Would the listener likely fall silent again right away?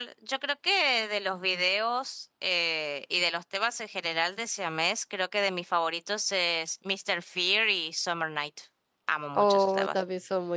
No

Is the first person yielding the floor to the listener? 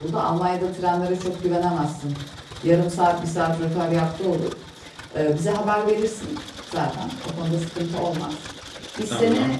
No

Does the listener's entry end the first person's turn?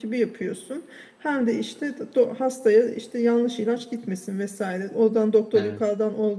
No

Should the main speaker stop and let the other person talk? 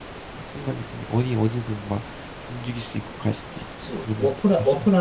Yes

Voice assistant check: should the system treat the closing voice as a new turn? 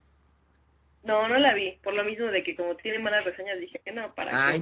Yes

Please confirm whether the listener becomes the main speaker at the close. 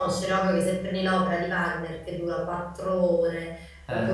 No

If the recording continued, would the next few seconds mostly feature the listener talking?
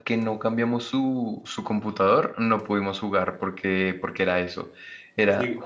No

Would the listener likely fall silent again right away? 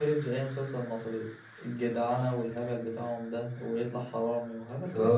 No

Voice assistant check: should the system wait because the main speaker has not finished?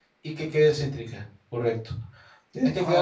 Yes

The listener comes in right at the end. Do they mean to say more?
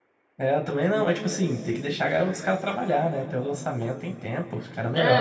Yes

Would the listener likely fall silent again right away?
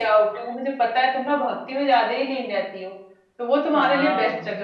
Yes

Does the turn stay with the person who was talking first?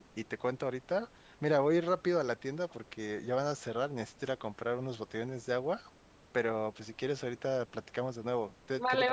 No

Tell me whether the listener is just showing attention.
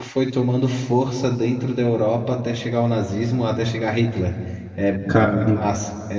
Yes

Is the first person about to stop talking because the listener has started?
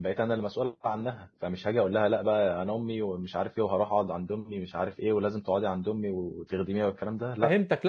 Yes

